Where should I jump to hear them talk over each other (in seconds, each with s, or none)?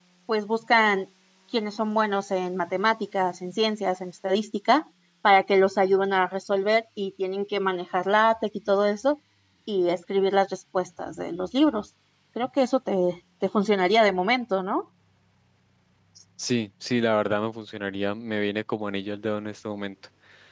none